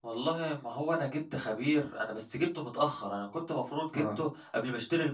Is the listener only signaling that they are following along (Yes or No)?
Yes